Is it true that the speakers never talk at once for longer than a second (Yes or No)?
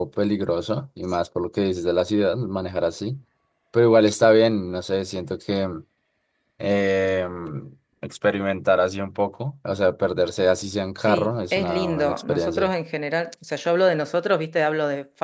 No